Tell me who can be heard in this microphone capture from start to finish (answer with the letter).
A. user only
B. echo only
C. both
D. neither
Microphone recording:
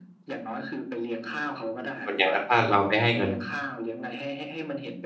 C